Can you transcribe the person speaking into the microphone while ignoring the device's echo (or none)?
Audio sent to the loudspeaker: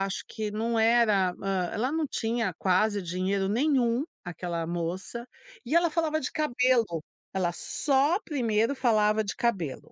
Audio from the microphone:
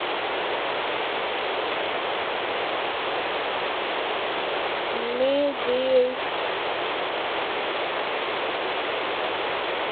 Meu Deus!